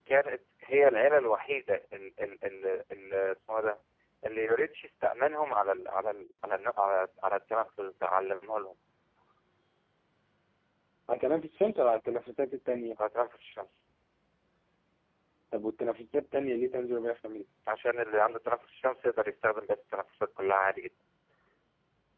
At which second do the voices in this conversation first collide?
none

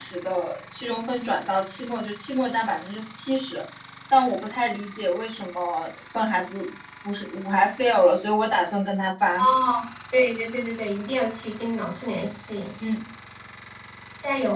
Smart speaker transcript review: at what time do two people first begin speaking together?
none

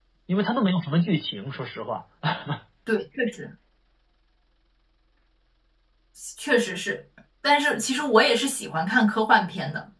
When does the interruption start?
none

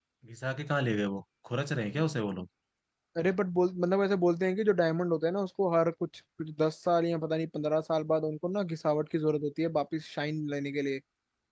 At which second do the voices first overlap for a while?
none

